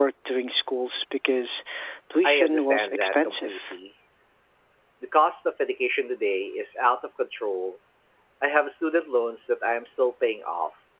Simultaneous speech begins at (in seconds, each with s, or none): 2.2 s